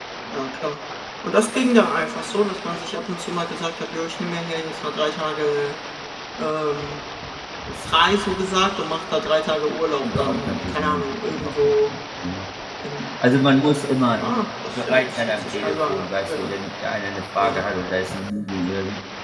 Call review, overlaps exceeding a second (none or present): present